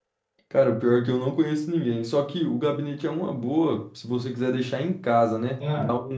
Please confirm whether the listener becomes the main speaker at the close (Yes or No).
No